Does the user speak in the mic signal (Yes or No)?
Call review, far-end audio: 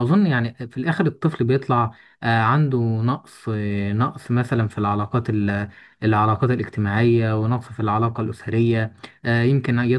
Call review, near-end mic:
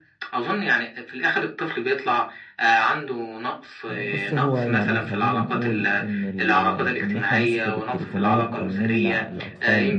Yes